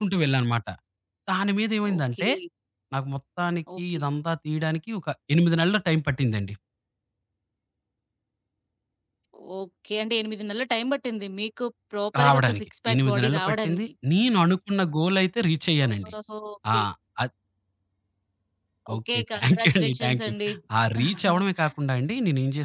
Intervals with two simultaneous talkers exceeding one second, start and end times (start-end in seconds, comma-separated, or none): 12.2-13.8, 19.0-20.3